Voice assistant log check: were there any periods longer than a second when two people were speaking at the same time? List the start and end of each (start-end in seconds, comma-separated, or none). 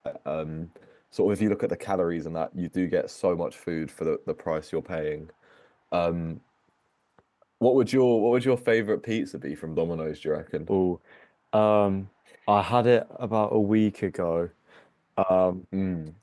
none